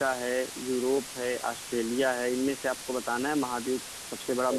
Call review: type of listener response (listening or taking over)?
taking over